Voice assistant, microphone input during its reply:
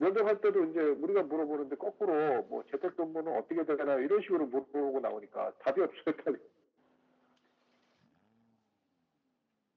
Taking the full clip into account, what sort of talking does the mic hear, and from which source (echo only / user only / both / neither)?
echo only